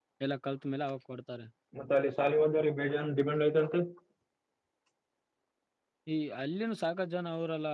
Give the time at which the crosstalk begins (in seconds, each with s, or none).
none